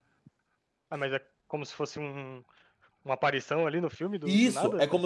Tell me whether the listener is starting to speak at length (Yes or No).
Yes